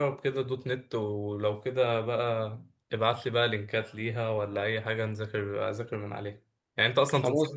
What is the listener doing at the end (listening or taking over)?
listening